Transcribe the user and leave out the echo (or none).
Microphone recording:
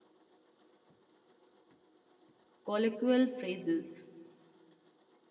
colloquial phrases.